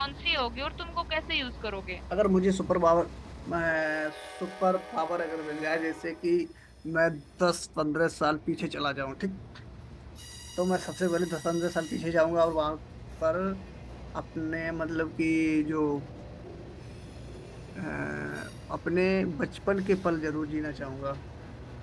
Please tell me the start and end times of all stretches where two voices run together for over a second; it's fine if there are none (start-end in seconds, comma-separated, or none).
none